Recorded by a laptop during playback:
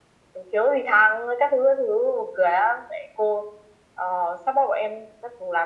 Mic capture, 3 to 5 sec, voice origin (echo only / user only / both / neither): echo only